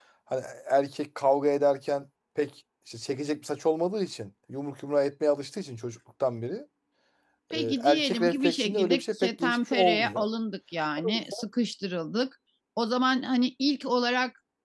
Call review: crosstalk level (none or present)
present